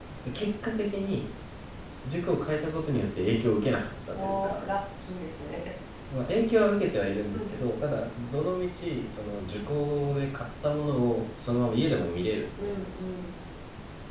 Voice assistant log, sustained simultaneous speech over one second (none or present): none